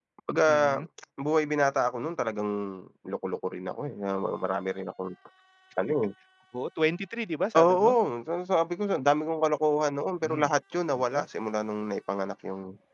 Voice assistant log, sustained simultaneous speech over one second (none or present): none